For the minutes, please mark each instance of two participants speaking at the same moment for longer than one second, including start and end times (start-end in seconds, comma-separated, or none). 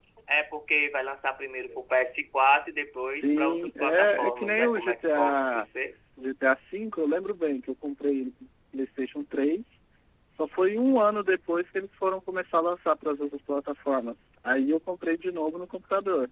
3.0-5.7